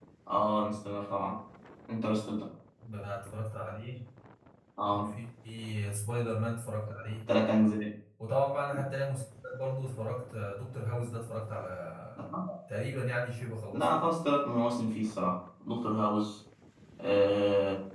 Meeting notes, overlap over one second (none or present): none